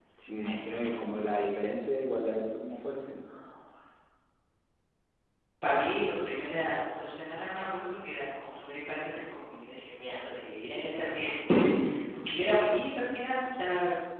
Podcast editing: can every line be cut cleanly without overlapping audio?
Yes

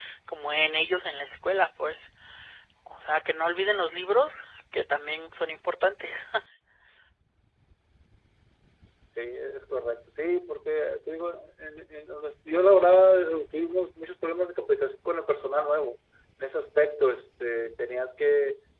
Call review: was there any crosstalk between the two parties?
No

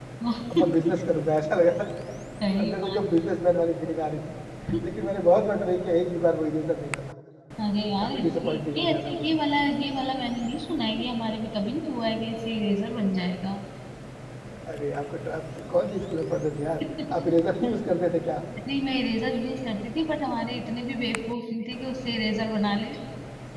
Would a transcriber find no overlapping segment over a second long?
No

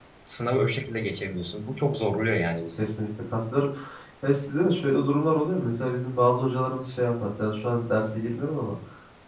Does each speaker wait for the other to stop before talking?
Yes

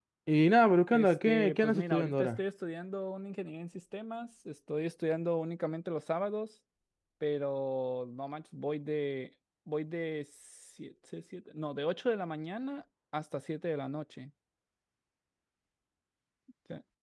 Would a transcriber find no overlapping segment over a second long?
No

